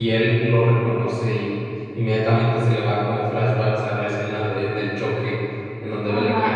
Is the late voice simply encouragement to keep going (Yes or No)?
No